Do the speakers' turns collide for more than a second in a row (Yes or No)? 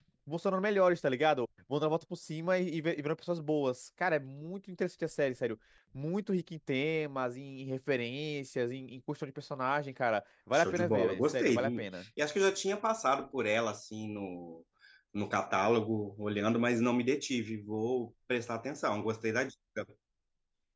Yes